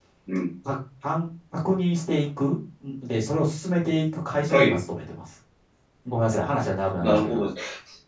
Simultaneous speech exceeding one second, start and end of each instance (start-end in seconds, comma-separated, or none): none